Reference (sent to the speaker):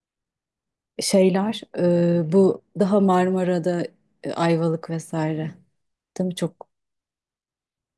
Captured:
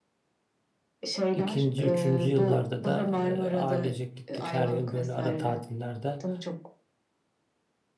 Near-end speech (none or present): present